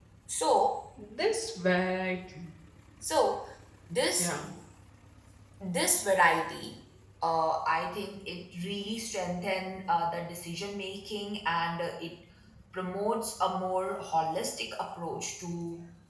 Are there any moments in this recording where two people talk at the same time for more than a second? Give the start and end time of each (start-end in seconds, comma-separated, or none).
none